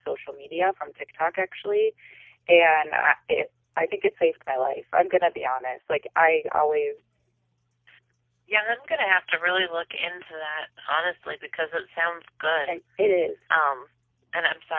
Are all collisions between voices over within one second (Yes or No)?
Yes